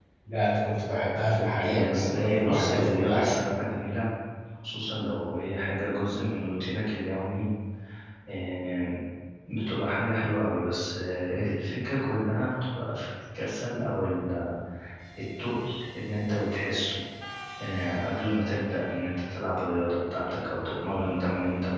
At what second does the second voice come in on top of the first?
1.7 s

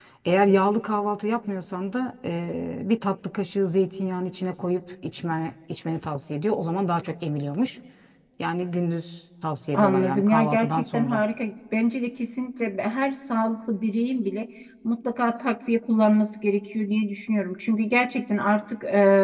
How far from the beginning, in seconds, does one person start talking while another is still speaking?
9.7 s

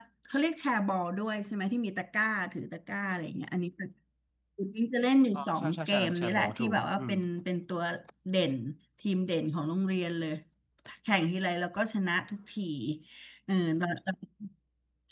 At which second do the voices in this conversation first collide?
5.3 s

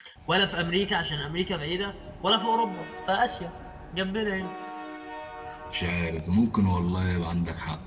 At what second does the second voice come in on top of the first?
none

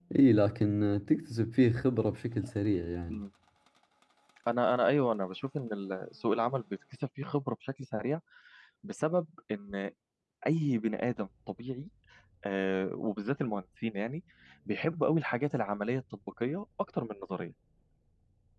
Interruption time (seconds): none

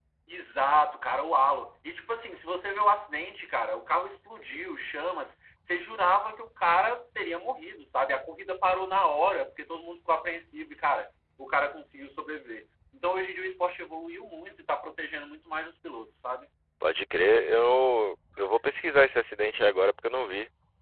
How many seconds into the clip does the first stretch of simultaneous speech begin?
none

